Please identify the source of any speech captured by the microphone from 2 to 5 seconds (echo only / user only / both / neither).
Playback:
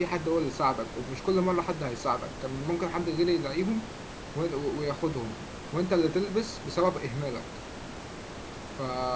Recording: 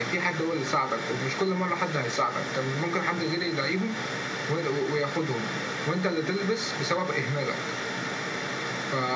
echo only